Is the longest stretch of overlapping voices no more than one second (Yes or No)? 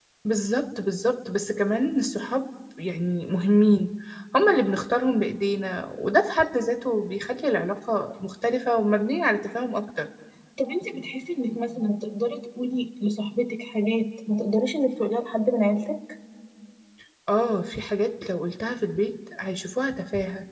Yes